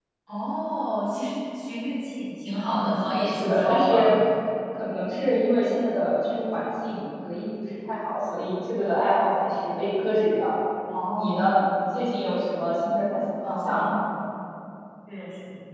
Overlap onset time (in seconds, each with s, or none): 2.7 s